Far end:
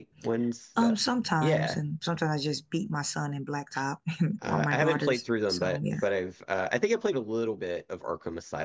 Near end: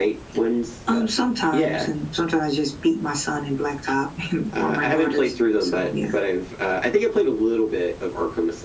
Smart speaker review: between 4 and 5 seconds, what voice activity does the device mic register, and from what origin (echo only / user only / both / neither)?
echo only